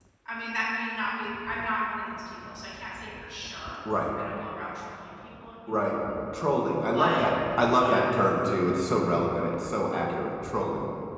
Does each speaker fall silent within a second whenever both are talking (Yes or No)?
Yes